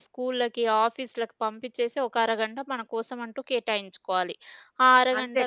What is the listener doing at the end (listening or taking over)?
listening